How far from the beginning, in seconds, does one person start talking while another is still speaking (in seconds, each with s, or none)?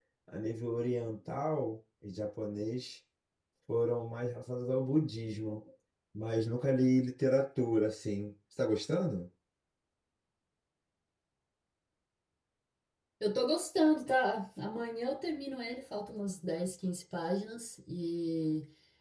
none